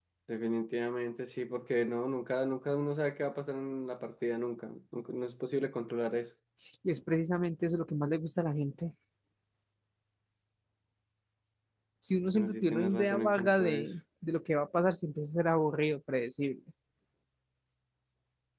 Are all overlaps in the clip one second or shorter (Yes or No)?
No